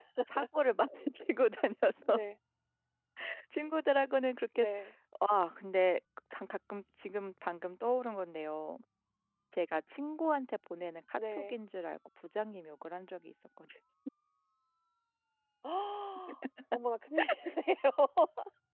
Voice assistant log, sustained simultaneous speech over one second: none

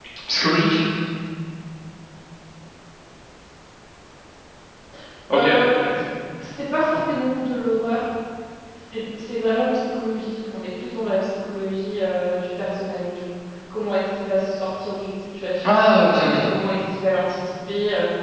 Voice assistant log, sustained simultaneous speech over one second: none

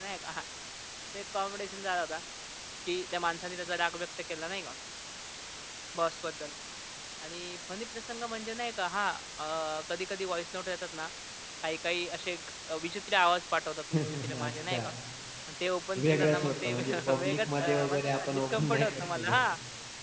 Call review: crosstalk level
present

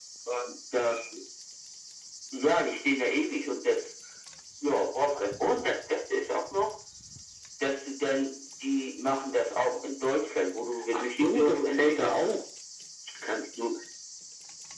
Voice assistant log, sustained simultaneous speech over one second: present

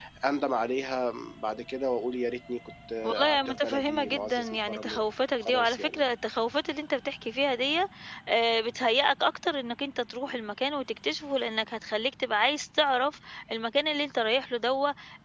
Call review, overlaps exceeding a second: present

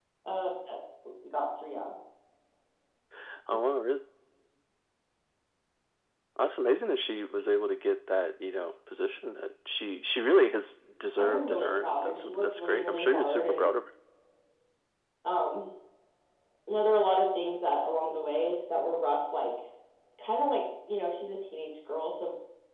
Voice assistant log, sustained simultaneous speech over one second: present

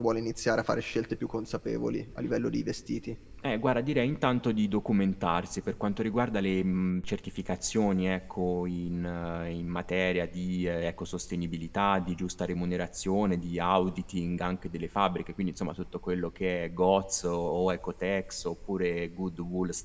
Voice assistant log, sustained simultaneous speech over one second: none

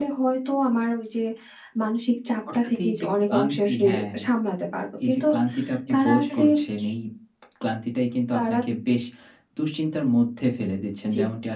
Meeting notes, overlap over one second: present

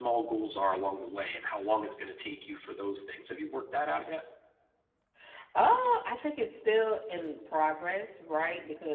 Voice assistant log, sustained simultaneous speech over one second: none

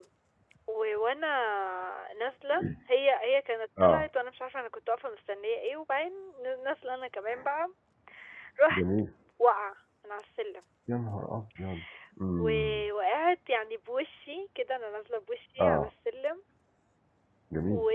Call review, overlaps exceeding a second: none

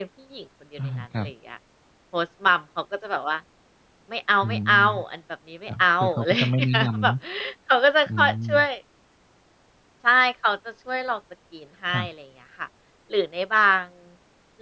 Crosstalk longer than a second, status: present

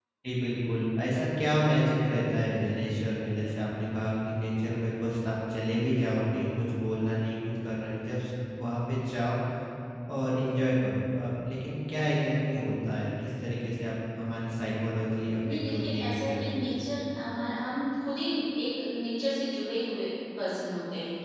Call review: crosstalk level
present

